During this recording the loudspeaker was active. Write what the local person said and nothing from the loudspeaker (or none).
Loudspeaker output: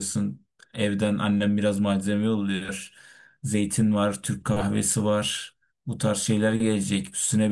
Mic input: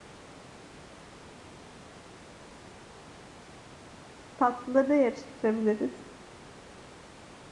tatlıları da yarıştırabiliriz.